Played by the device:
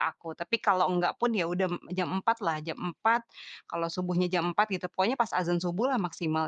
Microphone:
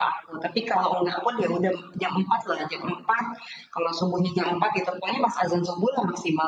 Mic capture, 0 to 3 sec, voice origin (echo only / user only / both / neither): echo only